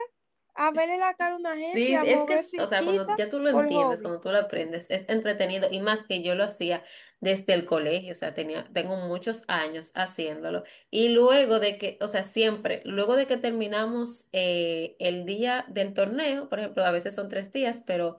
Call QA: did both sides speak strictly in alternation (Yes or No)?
No